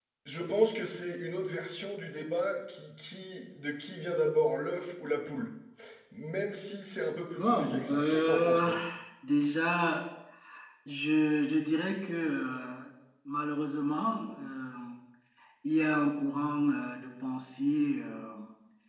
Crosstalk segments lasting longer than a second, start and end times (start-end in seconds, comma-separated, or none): 7.4-8.6